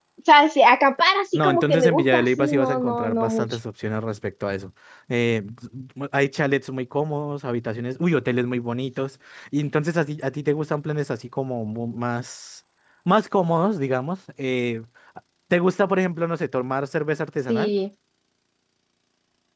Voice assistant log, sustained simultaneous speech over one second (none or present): present